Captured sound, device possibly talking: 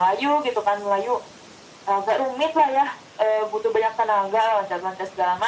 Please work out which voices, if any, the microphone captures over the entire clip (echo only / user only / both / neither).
echo only